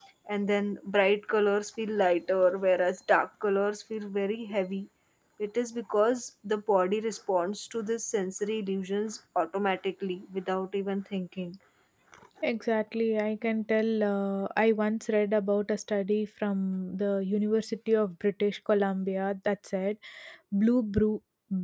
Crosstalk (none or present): none